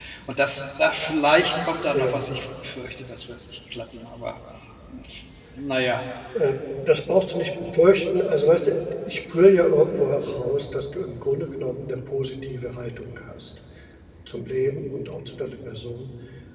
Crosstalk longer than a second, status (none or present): none